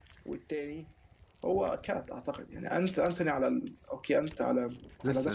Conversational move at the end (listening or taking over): listening